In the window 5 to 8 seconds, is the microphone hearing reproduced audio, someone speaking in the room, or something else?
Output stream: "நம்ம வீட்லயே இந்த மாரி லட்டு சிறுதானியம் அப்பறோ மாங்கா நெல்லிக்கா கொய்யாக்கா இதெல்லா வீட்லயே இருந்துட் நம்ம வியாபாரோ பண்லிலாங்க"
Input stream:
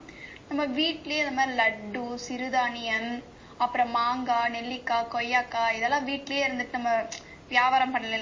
echo only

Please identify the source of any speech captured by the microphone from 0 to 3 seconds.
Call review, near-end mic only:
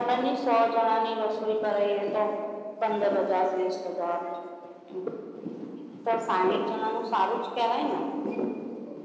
echo only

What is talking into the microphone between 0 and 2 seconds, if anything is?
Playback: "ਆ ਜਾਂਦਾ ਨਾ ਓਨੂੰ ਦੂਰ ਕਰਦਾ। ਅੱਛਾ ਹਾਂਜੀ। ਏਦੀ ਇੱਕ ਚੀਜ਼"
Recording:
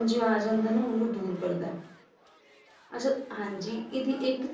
echo only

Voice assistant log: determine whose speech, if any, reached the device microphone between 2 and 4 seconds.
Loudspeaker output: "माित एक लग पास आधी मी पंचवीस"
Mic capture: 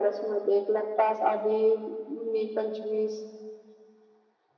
echo only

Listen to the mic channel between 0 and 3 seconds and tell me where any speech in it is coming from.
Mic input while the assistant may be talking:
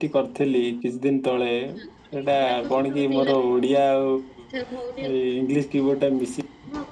both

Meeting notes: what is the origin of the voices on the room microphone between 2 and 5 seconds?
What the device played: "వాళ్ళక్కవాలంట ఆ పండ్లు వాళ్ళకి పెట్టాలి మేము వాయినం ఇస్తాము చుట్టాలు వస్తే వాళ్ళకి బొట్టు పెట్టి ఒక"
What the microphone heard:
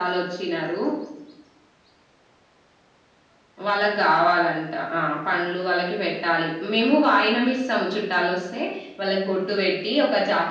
echo only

